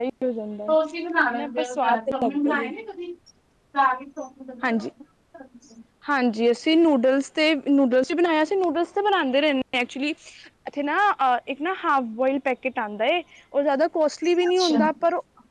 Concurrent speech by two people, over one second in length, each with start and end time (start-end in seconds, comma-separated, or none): 1.3-2.7